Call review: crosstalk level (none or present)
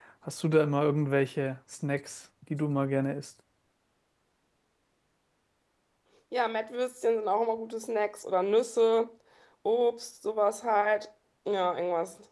none